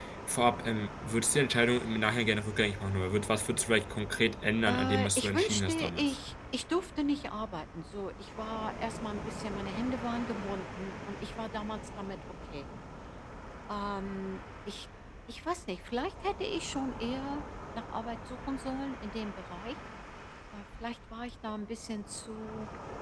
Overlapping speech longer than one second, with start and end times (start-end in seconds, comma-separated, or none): 4.7-6.2